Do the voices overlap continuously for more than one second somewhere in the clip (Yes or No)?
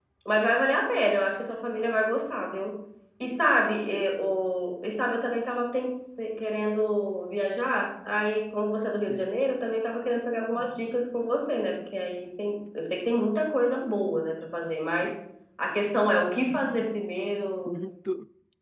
No